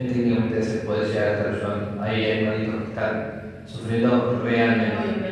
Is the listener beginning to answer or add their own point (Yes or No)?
Yes